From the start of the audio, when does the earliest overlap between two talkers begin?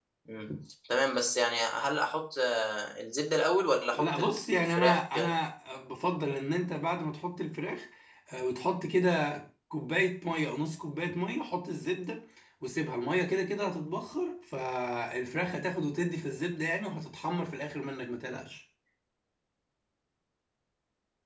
3.9 s

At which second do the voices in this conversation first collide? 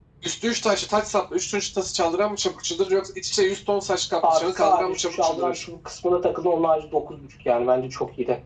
4.2 s

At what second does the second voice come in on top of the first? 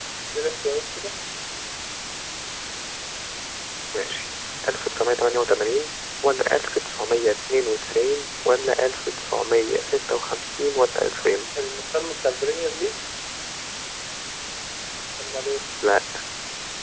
none

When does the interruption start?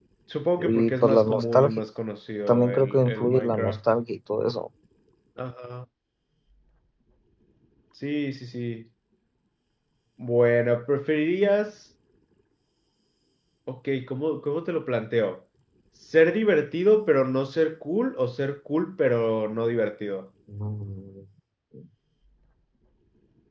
0.6 s

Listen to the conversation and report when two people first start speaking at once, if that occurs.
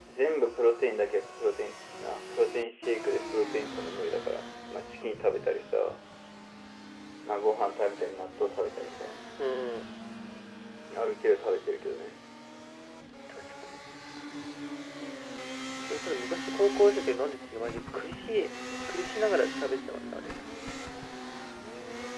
none

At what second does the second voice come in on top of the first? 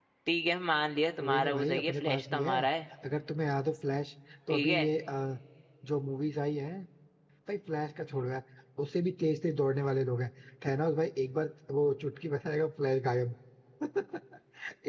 1.2 s

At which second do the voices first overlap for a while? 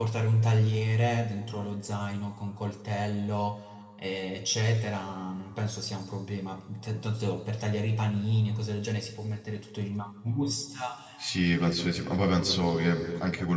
none

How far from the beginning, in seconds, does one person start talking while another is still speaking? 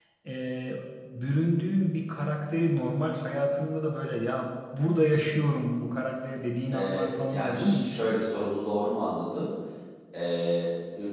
6.7 s

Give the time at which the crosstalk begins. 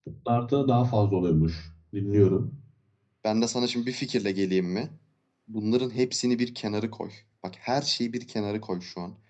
none

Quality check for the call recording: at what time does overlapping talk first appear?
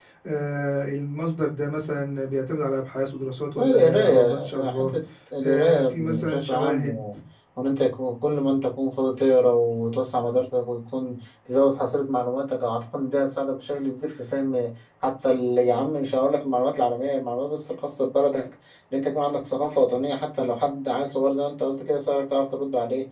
3.6 s

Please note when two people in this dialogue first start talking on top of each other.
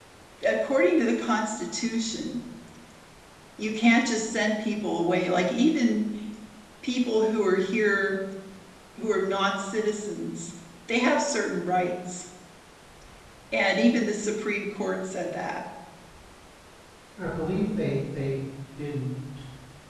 none

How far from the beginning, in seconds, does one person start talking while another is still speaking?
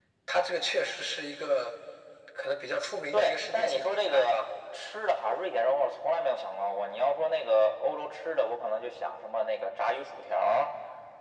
3.1 s

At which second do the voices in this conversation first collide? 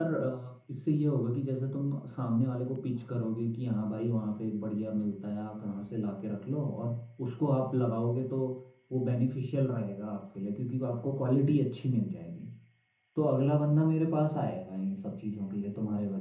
none

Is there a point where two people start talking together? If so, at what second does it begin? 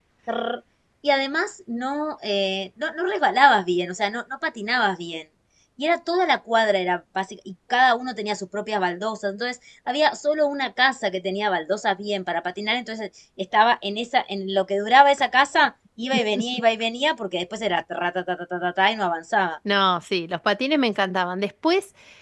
none

